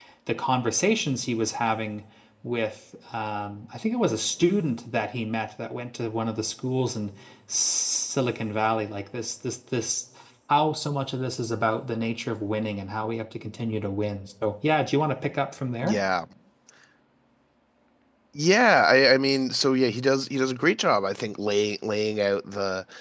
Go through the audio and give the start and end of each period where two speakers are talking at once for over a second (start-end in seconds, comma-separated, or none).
none